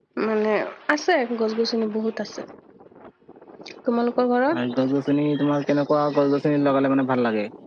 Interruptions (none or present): none